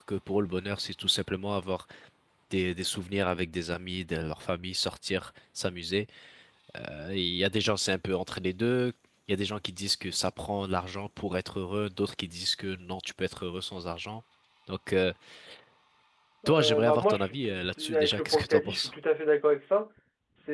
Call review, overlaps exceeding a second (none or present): present